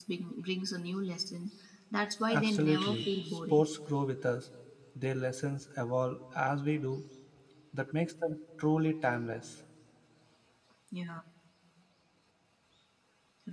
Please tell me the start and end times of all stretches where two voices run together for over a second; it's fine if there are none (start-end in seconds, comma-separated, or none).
2.3-3.6